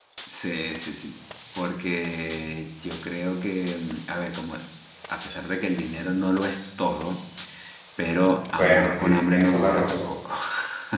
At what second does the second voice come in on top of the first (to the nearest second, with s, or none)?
9 s